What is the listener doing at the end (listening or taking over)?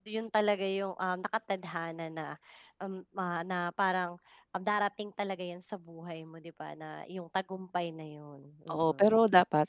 taking over